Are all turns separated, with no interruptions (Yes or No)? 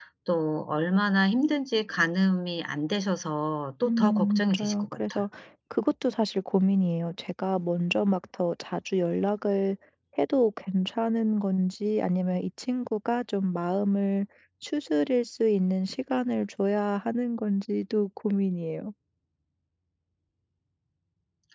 No